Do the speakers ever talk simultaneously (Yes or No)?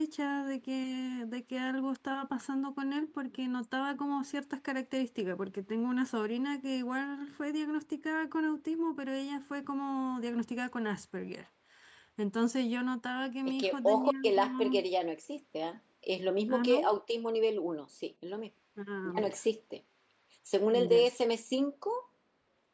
Yes